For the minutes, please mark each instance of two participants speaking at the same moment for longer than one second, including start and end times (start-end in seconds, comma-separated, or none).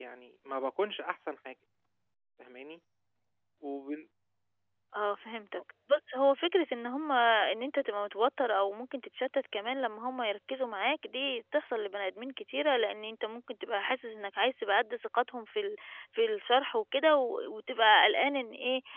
none